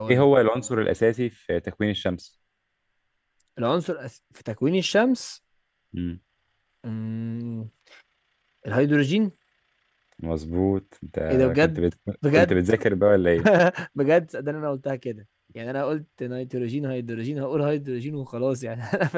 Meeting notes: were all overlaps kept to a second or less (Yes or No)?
Yes